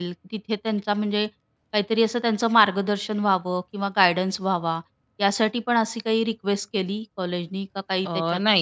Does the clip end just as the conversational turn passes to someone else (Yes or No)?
Yes